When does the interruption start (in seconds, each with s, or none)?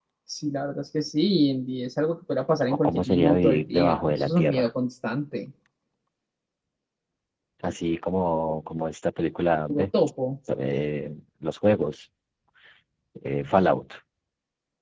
2.8 s